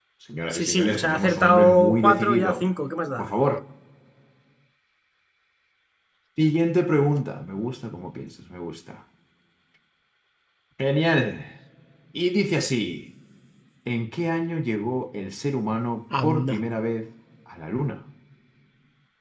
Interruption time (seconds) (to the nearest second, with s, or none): 1 s